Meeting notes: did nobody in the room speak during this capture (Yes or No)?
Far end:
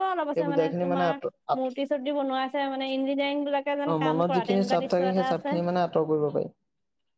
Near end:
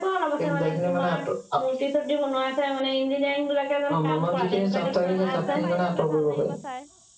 No